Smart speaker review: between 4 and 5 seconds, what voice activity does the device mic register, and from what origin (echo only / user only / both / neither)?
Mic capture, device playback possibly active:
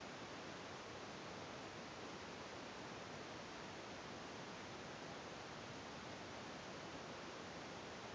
neither